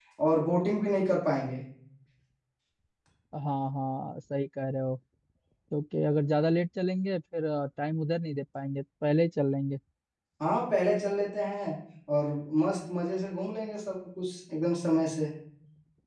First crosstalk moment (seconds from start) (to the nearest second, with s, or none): none